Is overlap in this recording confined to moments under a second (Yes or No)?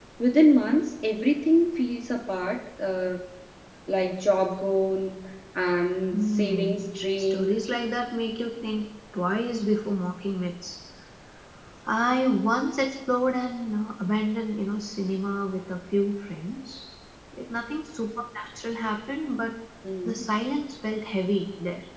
No